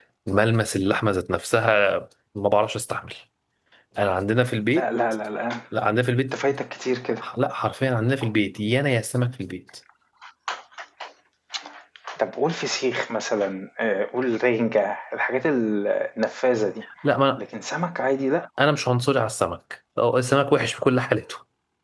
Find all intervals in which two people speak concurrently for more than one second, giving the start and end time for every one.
none

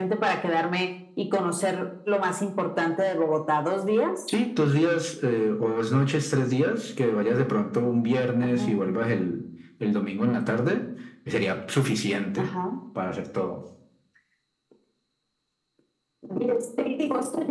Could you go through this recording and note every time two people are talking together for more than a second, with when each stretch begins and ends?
none

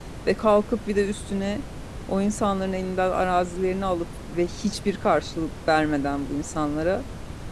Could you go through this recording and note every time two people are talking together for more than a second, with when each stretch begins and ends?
none

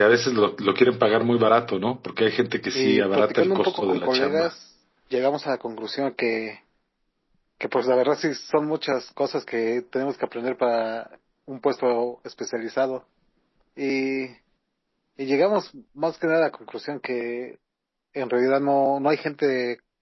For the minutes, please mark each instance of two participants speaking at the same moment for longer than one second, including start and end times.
2.7-4.5

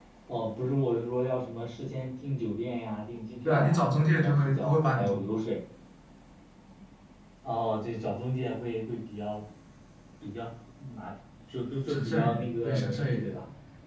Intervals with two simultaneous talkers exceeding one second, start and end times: 3.5-5.4, 11.9-13.3

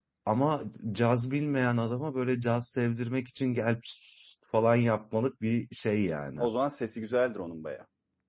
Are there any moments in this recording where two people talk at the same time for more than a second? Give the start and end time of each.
none

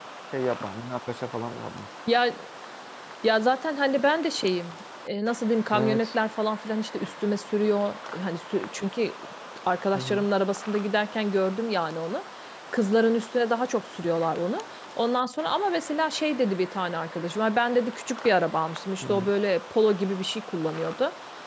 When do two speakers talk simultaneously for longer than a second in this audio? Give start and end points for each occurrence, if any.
none

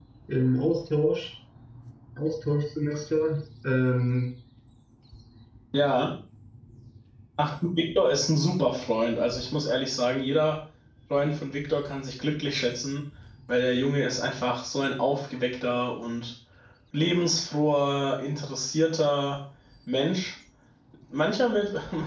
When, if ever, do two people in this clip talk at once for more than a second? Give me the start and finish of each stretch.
none

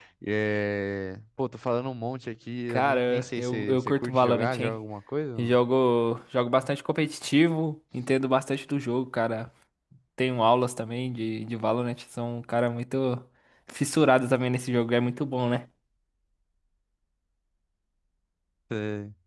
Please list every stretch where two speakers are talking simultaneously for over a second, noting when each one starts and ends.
2.7-4.8

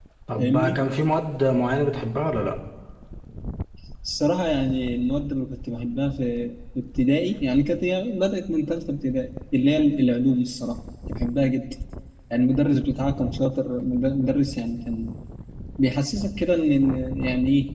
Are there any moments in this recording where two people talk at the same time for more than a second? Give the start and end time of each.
none

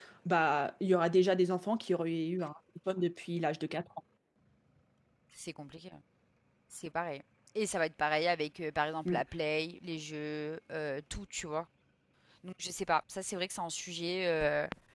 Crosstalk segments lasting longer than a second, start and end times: none

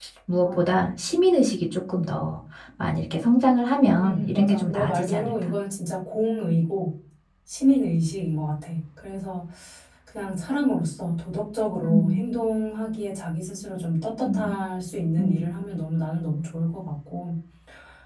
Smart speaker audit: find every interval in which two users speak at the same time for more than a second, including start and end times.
4.0-5.5

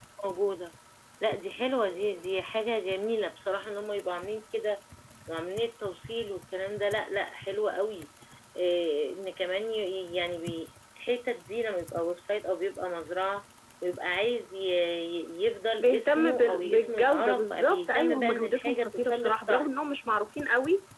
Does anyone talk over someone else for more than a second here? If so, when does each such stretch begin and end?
15.8-19.7

